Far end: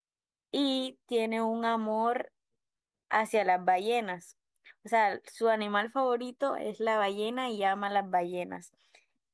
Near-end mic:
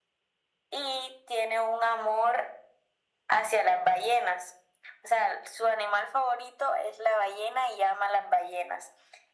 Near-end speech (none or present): none